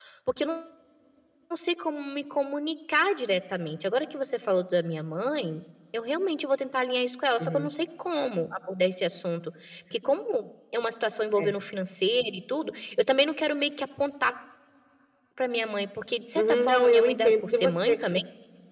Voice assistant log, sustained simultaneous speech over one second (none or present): present